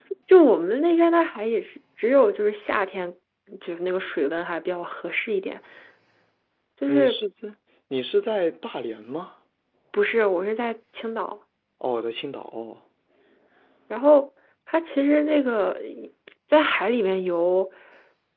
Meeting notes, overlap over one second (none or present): none